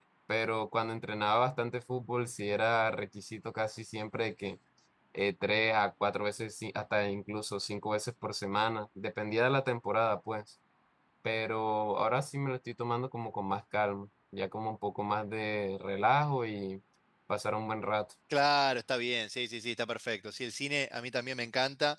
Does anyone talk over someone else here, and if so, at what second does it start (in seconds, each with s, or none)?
none